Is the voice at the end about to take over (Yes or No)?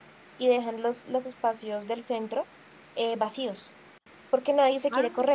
No